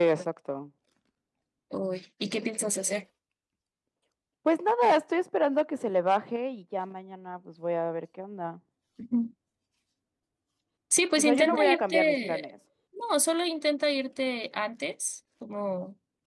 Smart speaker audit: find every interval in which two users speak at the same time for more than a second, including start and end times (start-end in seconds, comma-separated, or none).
11.2-12.4